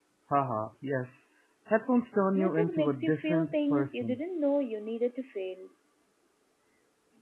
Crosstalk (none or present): present